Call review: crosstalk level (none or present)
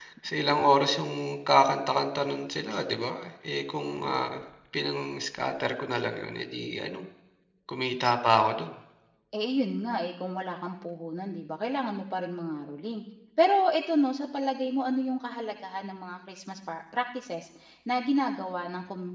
none